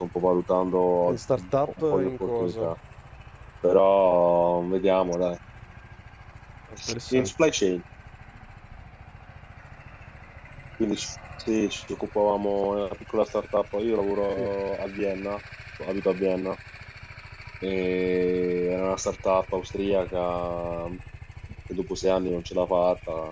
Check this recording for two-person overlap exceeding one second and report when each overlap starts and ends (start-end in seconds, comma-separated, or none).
1.1-2.7